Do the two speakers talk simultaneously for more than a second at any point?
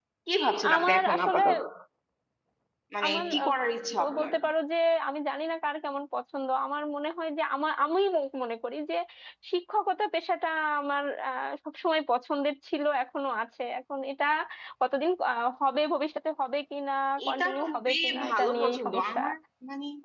Yes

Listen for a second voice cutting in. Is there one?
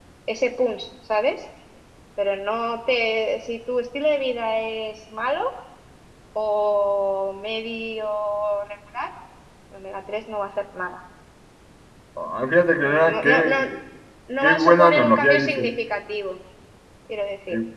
Yes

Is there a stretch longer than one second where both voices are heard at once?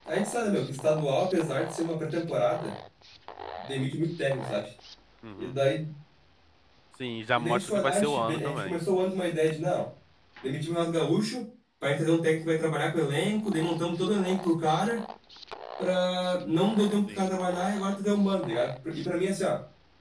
Yes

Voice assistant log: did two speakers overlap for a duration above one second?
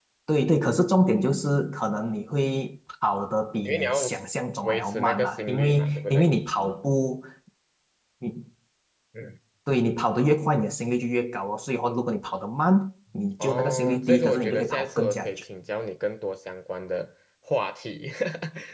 Yes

